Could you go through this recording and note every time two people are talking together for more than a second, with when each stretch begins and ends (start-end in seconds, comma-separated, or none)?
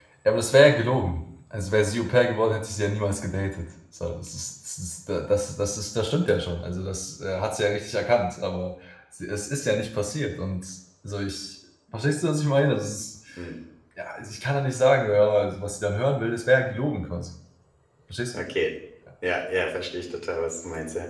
none